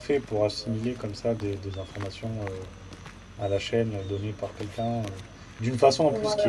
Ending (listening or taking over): listening